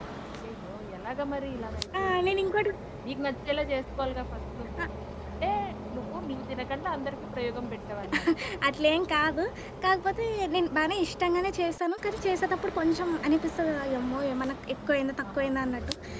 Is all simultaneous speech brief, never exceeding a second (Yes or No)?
Yes